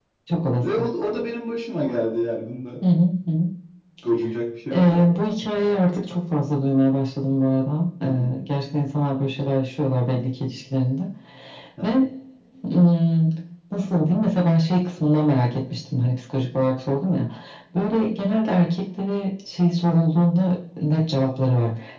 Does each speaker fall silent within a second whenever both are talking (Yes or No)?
Yes